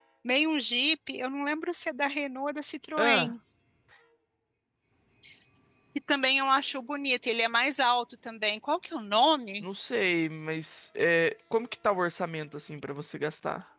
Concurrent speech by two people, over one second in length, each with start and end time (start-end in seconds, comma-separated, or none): none